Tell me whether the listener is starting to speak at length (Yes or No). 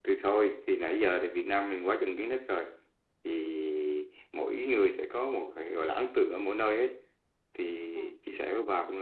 No